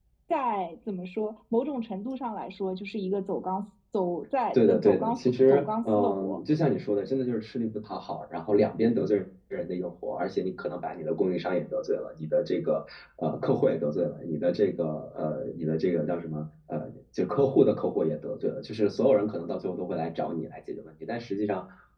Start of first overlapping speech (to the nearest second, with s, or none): 5 s